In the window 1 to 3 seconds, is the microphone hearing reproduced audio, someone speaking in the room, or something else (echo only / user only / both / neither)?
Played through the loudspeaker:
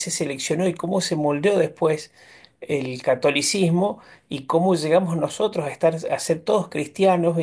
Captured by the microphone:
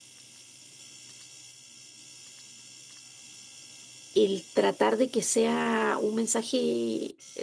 neither